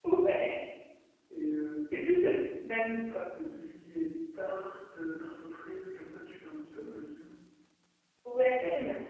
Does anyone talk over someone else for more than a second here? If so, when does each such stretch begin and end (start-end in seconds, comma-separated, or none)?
none